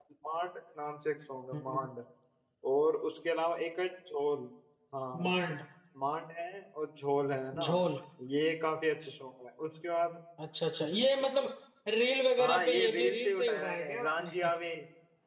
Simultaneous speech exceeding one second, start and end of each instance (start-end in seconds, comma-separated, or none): 12.4-14.3